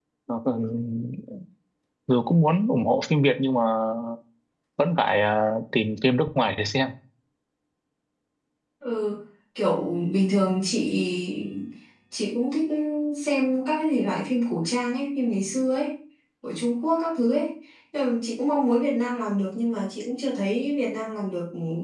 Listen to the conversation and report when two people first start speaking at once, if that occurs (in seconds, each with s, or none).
none